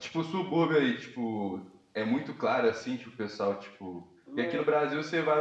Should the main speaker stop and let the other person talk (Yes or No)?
No